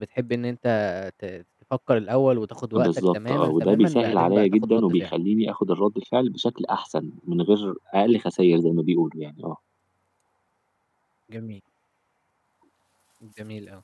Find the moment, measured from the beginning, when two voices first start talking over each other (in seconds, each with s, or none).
2.8 s